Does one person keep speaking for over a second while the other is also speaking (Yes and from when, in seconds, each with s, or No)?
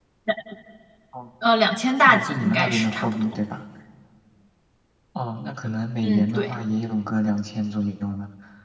Yes, from 2.0 s